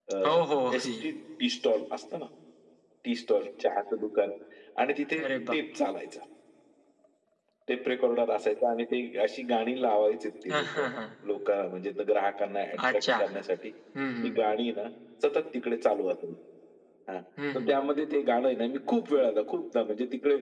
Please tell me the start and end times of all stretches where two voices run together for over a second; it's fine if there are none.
none

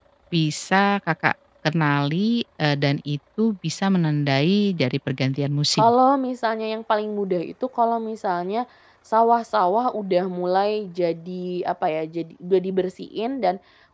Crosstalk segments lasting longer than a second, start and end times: none

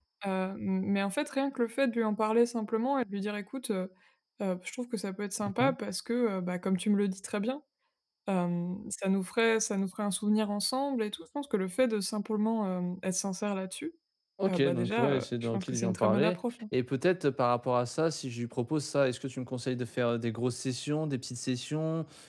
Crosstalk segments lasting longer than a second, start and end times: 14.5-16.4

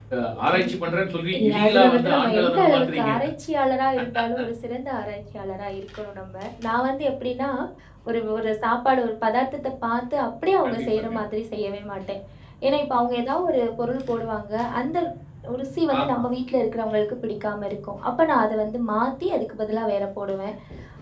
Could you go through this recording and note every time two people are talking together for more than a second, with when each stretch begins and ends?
1.4-3.1

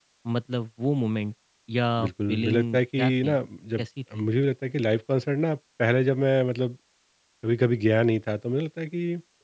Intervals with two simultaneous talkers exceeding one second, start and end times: 2.0-3.3

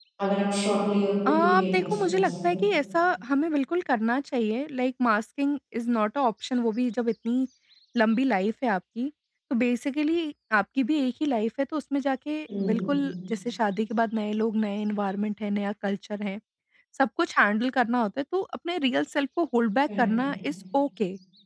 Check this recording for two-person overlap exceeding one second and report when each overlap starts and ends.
1.3-2.6

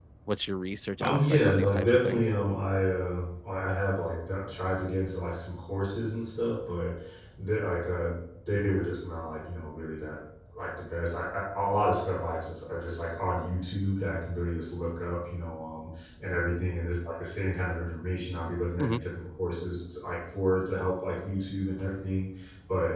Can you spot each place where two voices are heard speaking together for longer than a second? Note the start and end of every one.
1.0-2.3

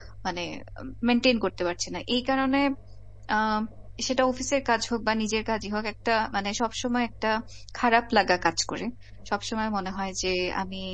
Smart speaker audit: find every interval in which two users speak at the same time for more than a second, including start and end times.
none

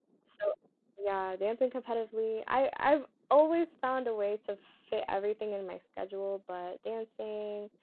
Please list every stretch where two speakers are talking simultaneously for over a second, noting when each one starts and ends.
none

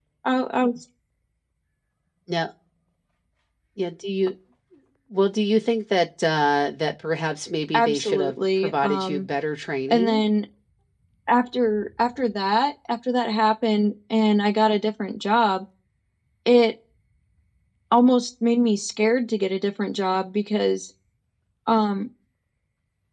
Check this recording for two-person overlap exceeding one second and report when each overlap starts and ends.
7.7-9.3

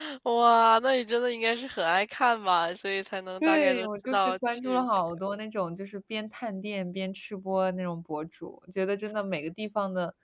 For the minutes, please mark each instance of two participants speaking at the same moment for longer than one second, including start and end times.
3.4-4.8

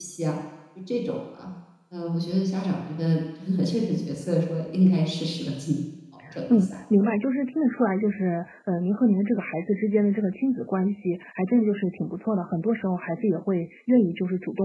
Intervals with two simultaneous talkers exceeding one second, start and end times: none

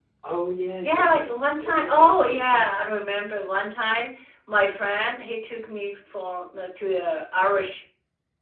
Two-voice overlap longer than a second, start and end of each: 0.8-2.8

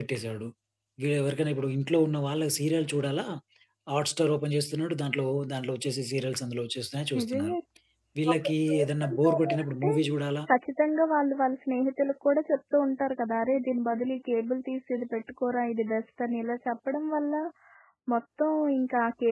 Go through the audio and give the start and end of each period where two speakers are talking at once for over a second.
8.3-9.9

